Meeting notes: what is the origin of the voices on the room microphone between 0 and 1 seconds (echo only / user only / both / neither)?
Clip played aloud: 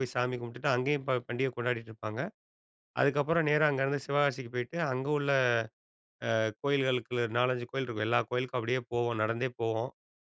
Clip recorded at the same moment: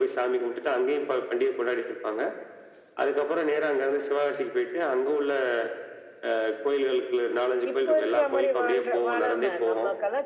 echo only